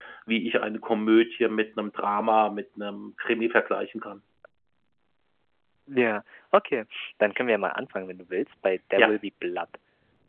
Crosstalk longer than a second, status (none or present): none